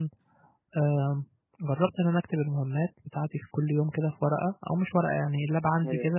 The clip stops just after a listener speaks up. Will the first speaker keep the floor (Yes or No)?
Yes